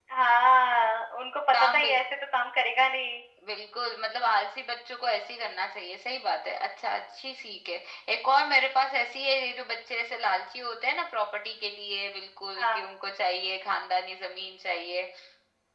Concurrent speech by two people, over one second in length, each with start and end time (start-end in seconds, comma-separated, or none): none